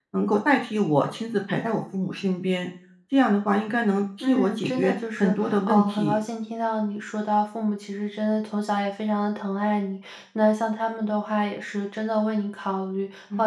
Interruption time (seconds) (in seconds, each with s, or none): 4.2 s